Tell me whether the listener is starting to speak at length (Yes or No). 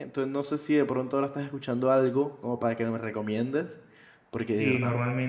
Yes